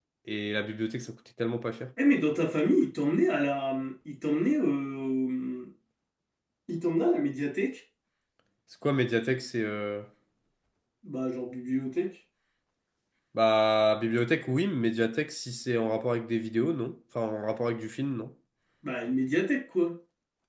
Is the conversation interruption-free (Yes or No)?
Yes